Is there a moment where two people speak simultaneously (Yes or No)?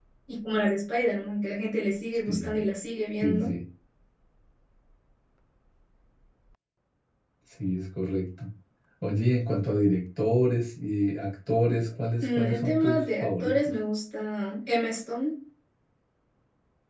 Yes